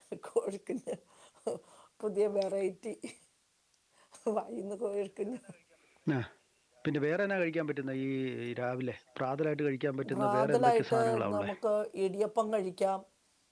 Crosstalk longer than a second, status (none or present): present